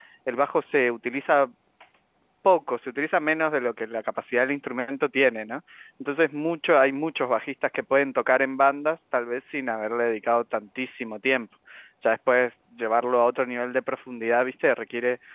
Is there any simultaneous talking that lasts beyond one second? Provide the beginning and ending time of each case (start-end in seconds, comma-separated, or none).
none